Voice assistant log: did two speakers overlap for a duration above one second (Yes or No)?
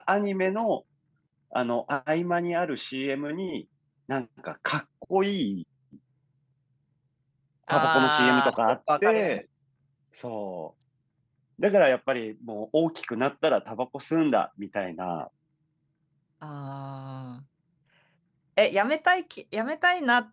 Yes